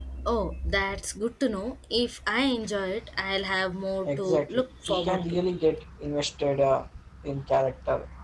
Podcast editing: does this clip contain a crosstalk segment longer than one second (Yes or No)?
Yes